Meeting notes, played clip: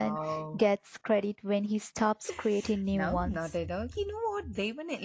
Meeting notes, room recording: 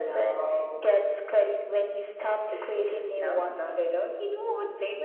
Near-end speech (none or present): none